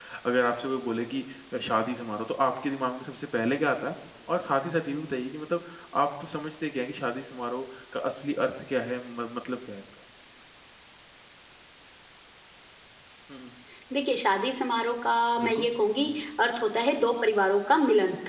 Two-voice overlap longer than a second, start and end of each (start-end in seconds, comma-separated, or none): none